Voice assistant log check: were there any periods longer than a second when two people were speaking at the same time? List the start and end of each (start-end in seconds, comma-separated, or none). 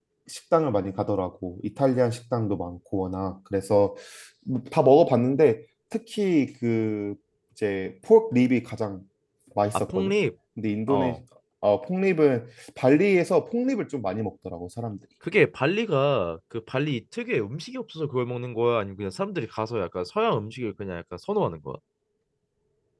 none